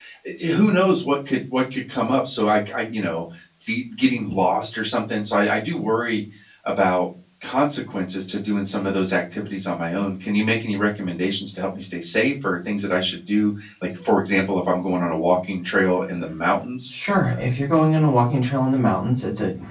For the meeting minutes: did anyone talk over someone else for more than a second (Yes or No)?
No